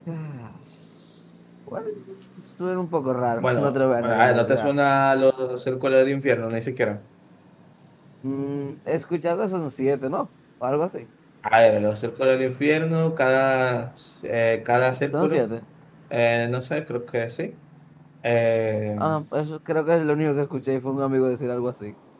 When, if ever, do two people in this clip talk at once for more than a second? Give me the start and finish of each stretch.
3.4-4.7

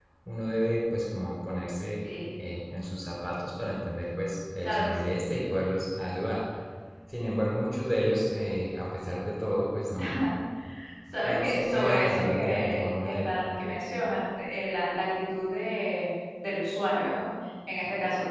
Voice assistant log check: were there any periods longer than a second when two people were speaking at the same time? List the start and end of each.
11.2-13.4

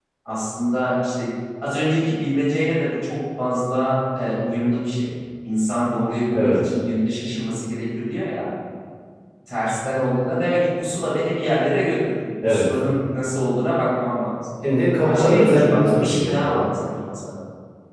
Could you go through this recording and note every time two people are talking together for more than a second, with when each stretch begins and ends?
15.0-16.6

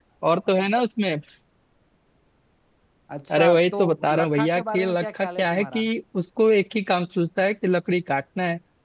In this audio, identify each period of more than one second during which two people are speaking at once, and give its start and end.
3.4-5.8

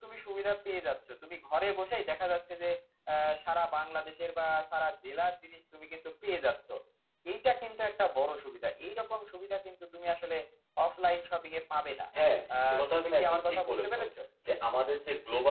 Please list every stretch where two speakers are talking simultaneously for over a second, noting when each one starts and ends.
12.7-14.0

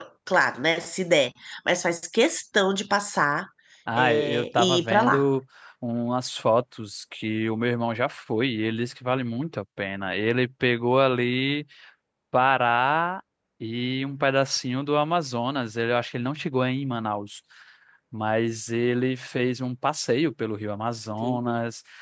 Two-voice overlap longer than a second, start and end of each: 4.0-5.2

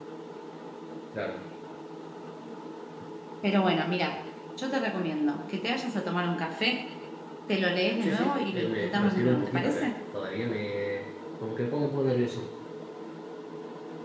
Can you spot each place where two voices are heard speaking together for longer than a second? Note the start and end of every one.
8.0-9.9

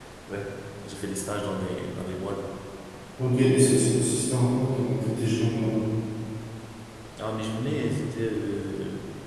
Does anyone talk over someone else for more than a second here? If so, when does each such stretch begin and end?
none

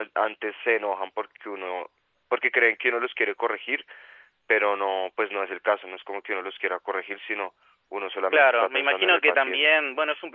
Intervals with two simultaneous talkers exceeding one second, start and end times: 8.3-9.6

